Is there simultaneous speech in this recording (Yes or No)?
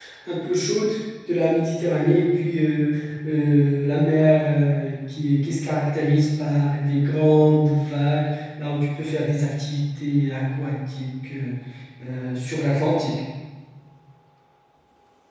No